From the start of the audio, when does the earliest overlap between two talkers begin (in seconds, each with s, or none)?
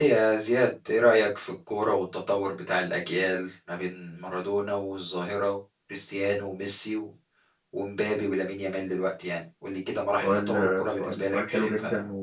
10.2 s